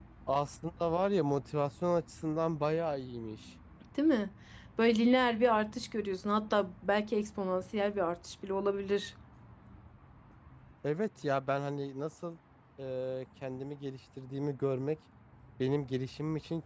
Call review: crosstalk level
none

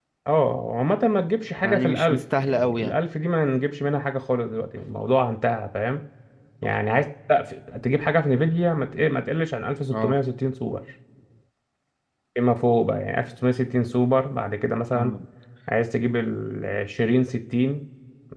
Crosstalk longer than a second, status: present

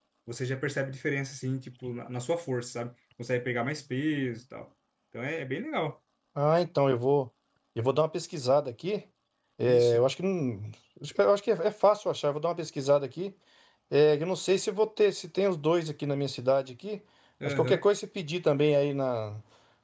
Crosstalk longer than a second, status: none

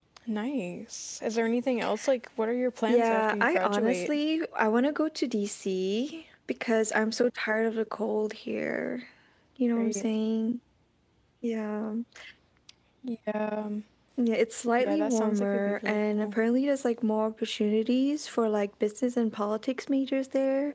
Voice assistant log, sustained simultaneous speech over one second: present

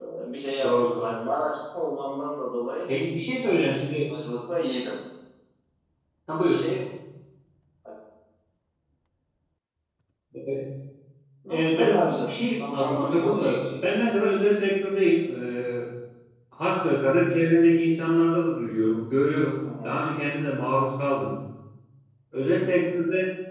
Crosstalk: present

